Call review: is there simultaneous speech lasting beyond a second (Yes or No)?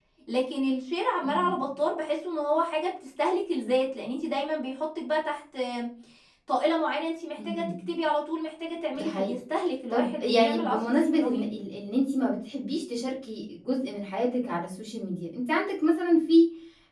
Yes